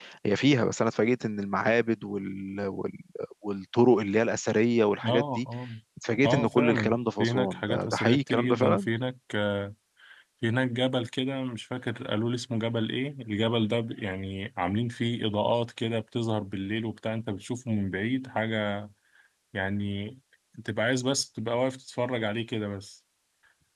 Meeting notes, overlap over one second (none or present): present